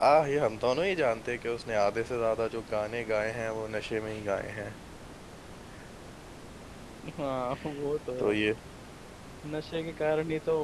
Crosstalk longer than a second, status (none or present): none